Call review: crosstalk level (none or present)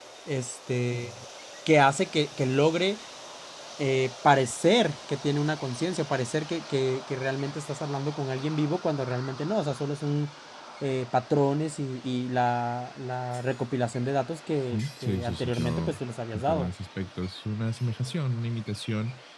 present